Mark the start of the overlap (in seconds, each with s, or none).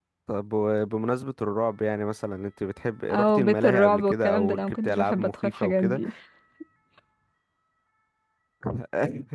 3.1 s